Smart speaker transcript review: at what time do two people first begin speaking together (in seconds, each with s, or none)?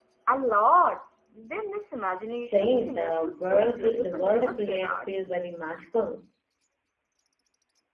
2.3 s